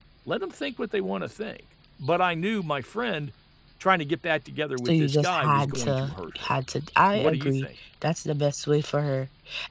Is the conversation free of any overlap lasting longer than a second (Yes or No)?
No